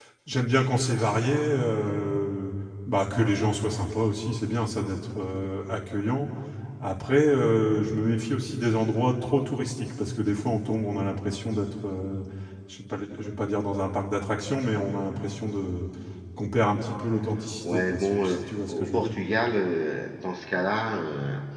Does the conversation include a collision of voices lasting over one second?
Yes, from 17.6 s

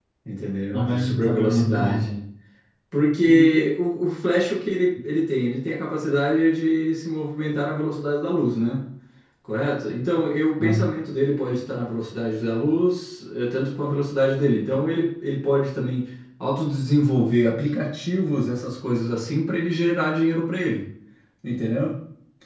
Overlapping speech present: Yes, from 0.7 s

